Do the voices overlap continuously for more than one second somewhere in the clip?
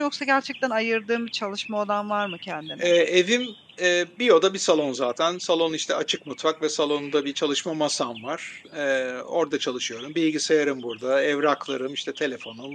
No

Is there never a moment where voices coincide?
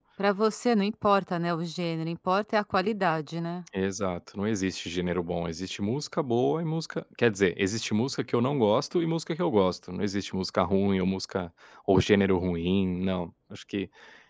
Yes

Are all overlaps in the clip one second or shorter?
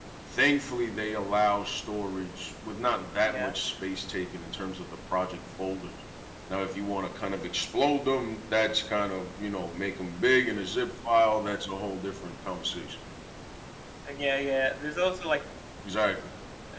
Yes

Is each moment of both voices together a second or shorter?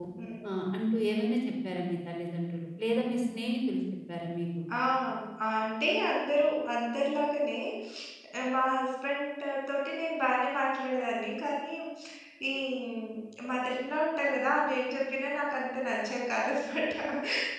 Yes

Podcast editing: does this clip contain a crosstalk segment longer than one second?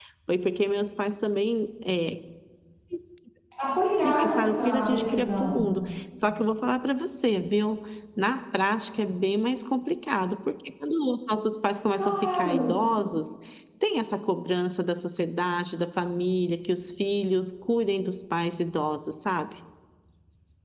Yes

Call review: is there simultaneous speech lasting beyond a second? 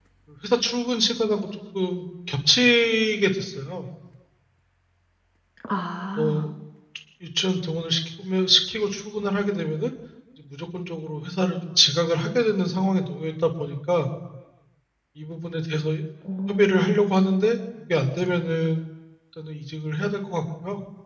No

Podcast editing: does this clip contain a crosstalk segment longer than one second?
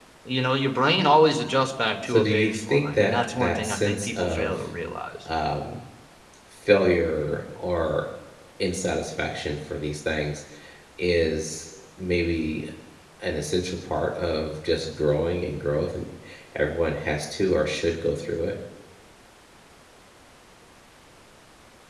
Yes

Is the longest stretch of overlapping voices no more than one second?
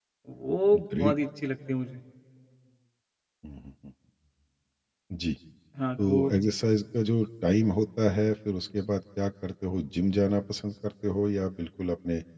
Yes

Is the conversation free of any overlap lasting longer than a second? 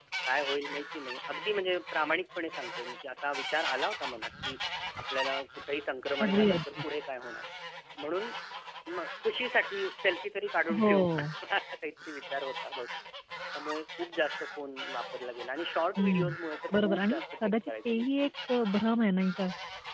No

